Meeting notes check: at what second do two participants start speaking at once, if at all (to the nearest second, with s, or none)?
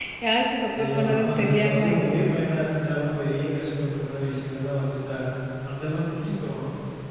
1 s